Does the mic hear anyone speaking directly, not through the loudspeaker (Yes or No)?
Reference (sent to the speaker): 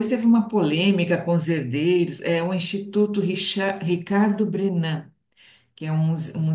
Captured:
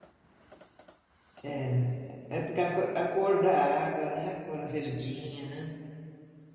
Yes